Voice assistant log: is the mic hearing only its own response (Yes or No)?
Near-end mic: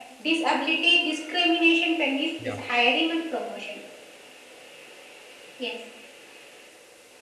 No